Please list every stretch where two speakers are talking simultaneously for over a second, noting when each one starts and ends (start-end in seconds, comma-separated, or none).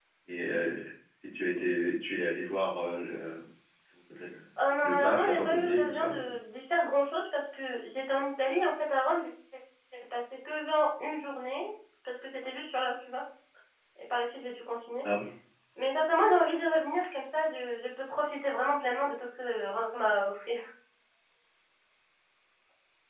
4.8-6.4